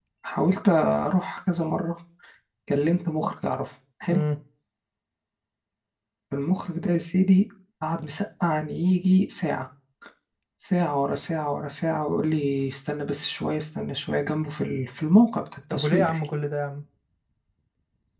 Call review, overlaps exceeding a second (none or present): none